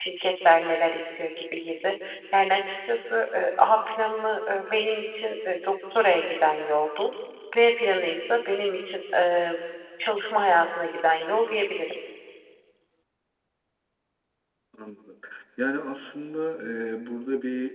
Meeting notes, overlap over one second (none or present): none